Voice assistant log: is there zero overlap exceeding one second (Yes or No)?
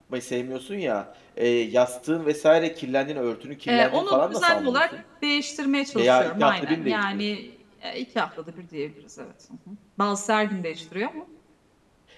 No